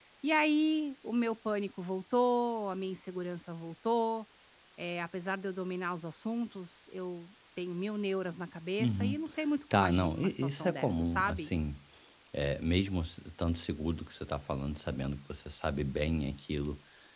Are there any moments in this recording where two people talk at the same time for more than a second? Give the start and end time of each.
9.7-11.5

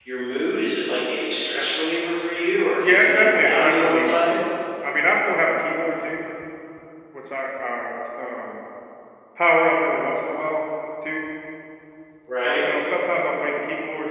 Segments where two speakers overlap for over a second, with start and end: 2.8-4.3

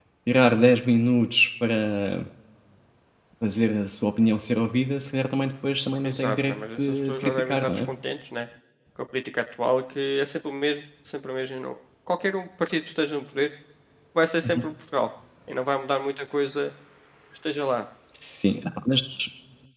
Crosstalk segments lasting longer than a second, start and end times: 6.0-7.9

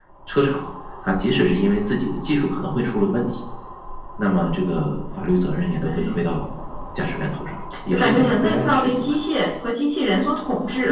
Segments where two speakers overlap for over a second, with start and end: 7.9-9.1

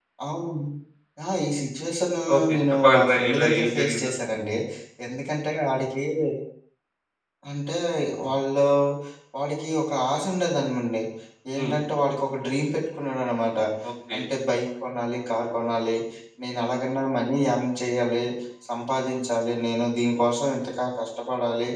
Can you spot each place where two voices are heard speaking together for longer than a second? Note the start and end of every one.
2.4-4.1

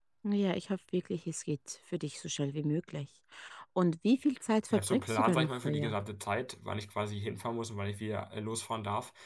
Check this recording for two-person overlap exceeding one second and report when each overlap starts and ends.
4.7-6.0

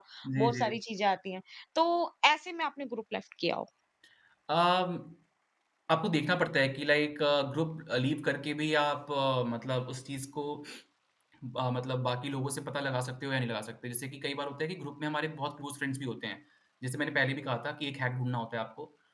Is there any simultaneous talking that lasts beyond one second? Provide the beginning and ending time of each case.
none

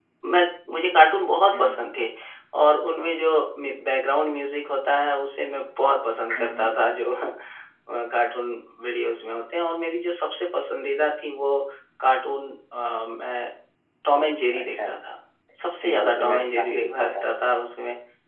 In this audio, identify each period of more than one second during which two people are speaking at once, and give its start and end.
15.8-17.2

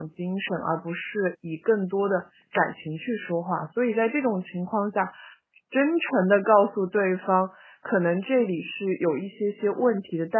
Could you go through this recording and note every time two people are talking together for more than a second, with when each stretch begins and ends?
none

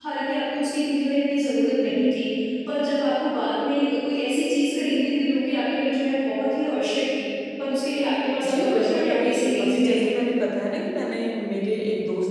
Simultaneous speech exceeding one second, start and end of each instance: 8.4-10.1

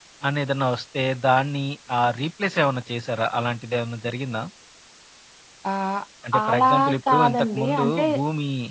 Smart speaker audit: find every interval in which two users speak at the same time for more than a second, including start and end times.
6.5-8.0

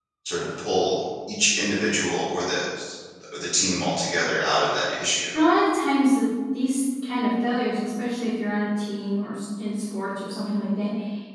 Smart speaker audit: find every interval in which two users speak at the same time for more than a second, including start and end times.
none

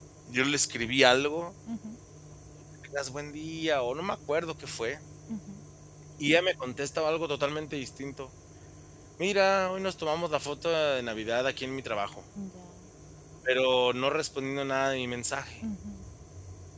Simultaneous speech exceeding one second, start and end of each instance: none

